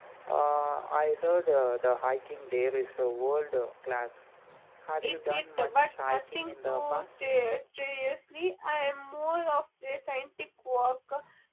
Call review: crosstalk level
present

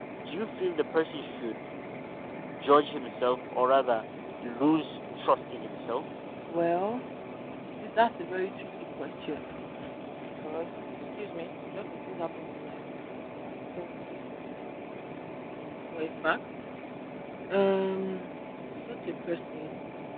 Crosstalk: none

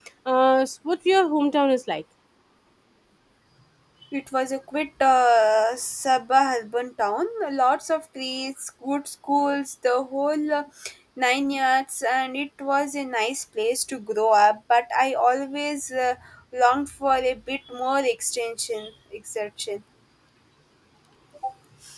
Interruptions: none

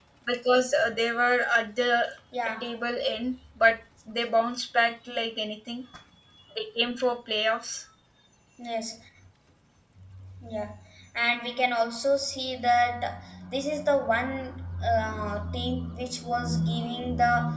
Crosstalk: none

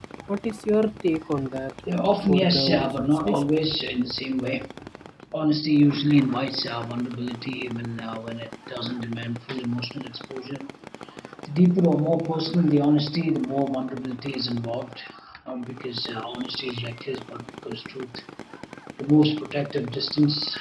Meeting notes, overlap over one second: present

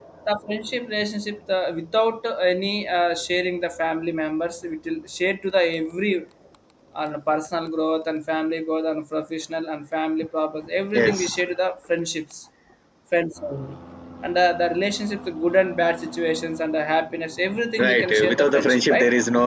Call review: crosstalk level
present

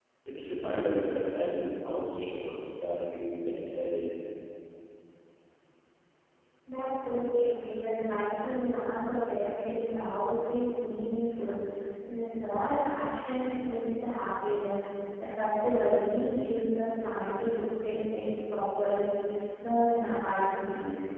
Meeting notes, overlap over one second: none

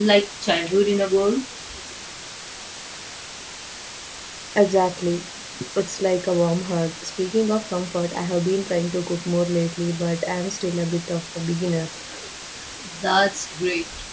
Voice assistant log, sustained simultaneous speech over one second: none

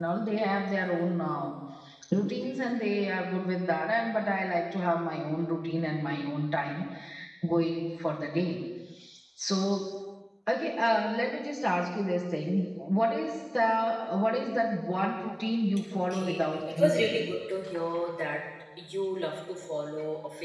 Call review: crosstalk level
present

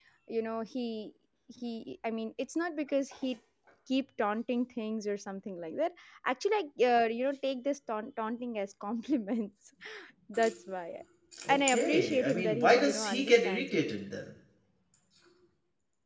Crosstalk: present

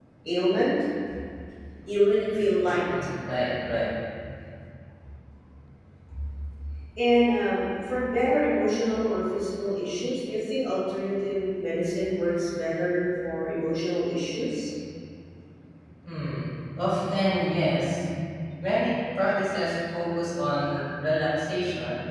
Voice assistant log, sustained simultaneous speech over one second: none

